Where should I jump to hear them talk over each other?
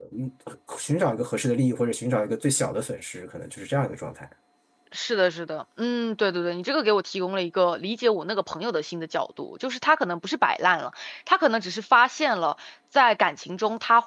none

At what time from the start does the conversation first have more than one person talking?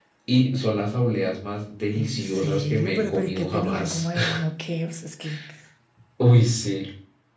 2 s

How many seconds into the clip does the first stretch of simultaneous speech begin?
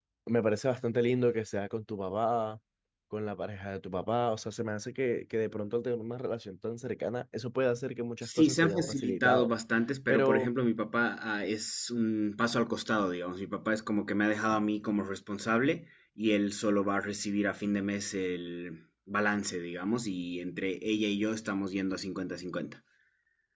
8 s

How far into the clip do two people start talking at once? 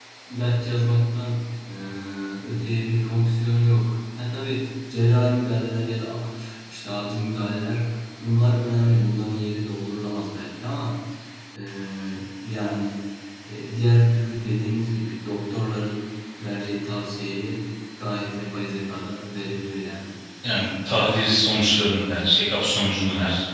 none

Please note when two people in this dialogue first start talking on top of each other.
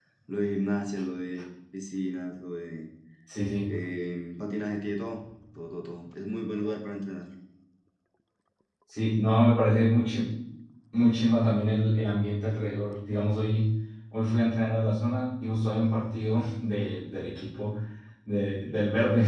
none

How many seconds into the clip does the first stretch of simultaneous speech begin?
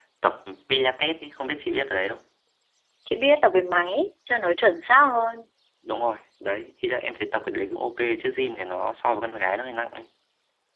none

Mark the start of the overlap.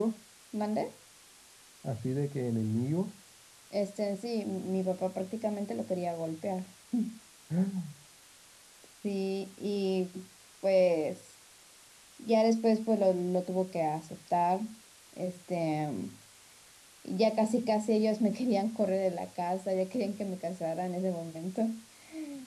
none

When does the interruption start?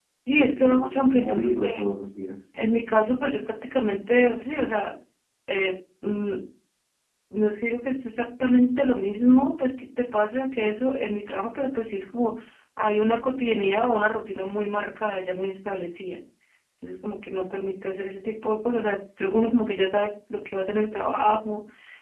1 s

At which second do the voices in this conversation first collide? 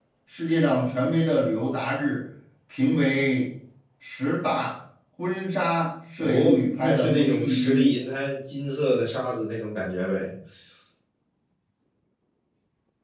6 s

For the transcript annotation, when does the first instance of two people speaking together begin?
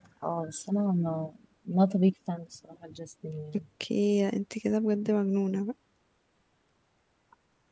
none

